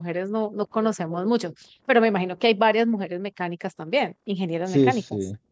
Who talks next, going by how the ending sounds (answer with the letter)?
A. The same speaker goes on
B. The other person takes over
B